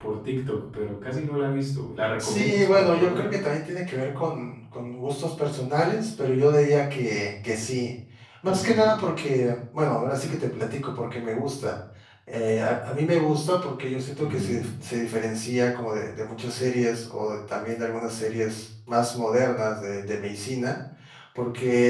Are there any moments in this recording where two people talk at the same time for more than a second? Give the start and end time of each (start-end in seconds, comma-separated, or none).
2.2-3.4